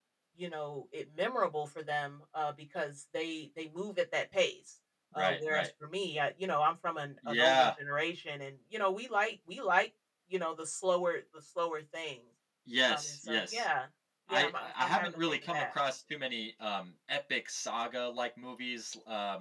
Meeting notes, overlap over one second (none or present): present